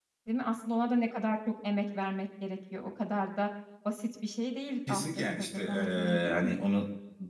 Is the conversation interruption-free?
No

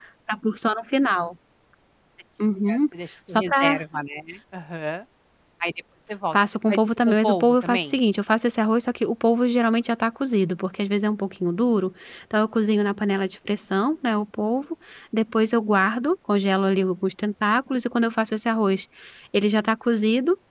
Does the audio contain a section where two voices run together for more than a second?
Yes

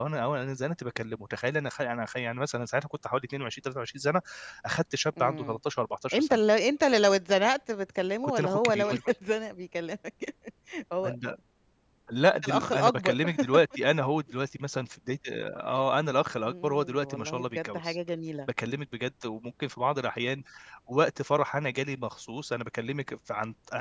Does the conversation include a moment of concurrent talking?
Yes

